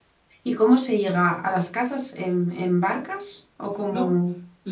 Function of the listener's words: taking over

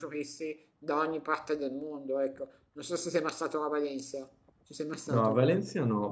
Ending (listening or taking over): taking over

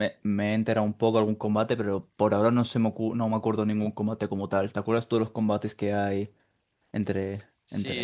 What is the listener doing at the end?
taking over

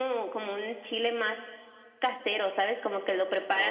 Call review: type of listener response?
listening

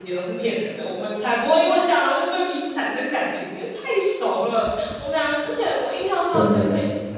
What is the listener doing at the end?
listening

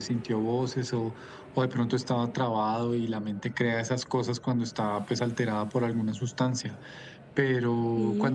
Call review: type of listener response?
listening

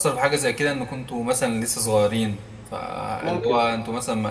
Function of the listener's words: listening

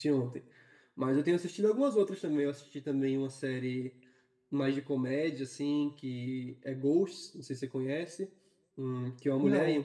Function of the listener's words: listening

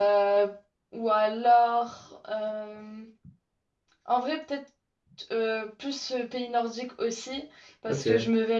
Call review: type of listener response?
listening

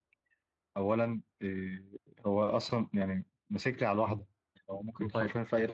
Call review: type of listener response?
taking over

